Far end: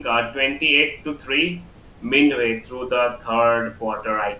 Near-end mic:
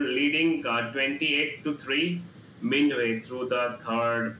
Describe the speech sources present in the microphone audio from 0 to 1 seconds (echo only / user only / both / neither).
echo only